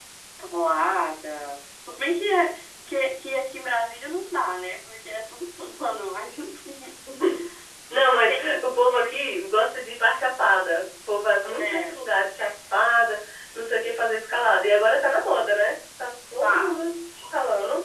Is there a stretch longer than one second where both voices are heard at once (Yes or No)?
No